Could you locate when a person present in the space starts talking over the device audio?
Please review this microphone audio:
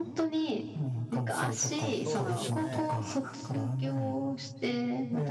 1.9 s

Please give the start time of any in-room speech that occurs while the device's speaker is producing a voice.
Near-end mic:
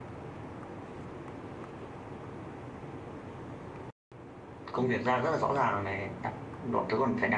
4.7 s

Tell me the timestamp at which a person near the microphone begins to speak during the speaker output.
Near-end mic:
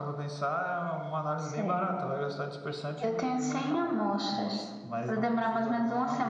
none

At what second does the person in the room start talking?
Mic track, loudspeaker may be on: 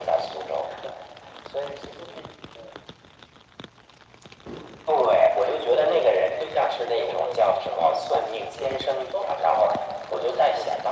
none

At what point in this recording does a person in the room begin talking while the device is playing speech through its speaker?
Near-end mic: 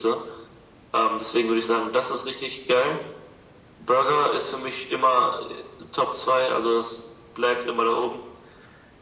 none

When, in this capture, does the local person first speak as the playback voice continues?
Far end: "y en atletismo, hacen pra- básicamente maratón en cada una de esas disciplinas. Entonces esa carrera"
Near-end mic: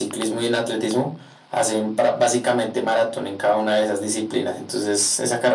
none

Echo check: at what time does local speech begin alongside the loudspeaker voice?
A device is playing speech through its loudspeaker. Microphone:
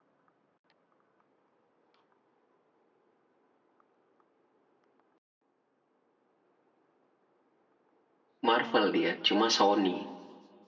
8.4 s

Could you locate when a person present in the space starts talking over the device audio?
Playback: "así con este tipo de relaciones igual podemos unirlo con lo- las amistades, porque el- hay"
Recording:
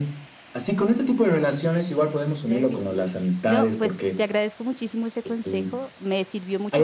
1.6 s

